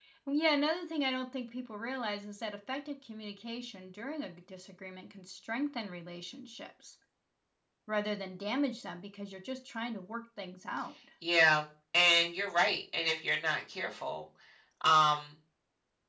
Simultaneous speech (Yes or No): No